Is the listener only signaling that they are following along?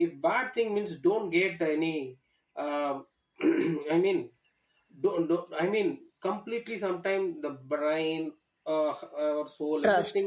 Yes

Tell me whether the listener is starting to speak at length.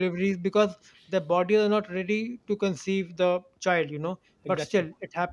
No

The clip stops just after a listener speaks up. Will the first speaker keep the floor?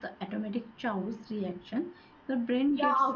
No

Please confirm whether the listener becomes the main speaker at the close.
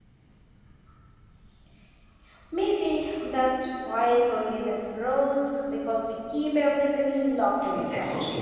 Yes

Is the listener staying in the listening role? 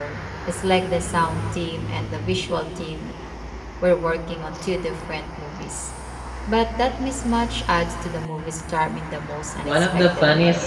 No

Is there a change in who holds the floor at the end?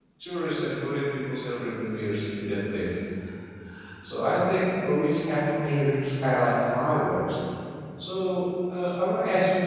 No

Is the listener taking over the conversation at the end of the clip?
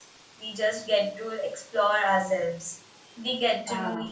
No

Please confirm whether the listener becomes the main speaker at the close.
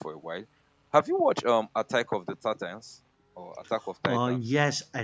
Yes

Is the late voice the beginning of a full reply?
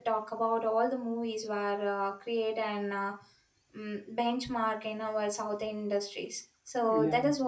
No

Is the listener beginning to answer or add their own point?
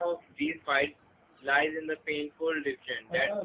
No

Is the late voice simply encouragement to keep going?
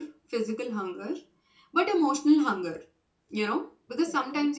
Yes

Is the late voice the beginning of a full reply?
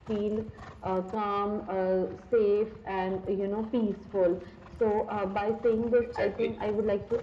No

